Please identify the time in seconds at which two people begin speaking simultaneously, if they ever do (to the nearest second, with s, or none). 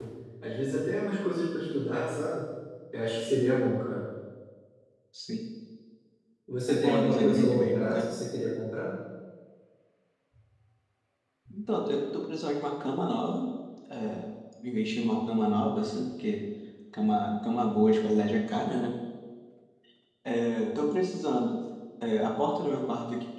7 s